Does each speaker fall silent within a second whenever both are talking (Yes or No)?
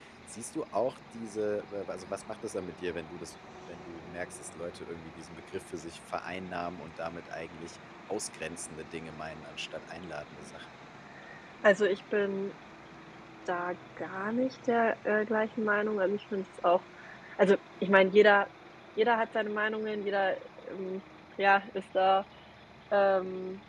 Yes